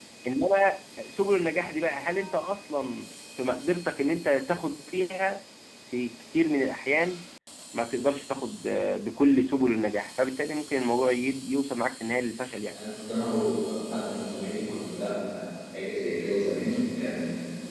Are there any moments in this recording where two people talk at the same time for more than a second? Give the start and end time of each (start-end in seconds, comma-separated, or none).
none